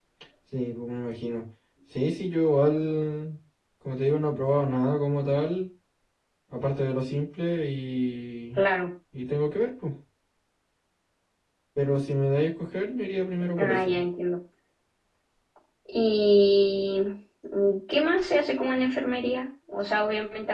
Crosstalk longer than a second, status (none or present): none